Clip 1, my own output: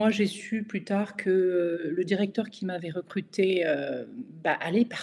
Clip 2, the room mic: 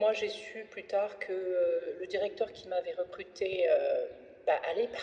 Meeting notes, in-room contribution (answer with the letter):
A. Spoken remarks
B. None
B